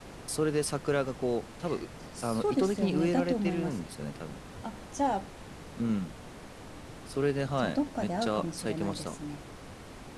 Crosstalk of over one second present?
Yes, from 2.2 s

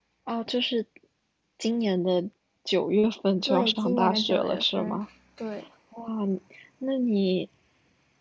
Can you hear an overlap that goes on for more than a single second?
Yes, from 3.5 s

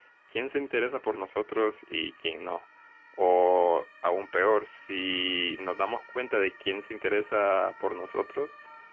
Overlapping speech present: No

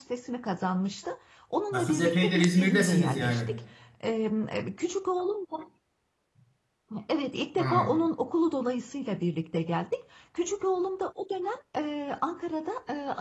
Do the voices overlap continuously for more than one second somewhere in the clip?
Yes, from 1.7 s

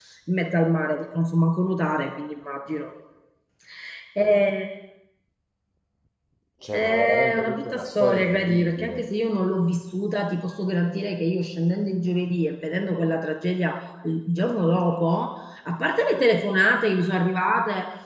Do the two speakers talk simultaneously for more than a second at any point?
Yes, from 6.7 s

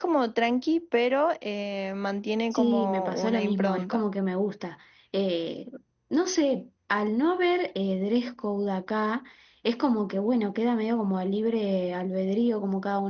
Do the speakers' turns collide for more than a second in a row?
Yes, from 2.5 s

